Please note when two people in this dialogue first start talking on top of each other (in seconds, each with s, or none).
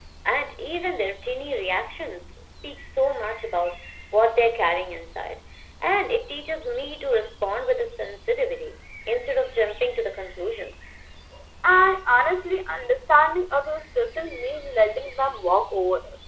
none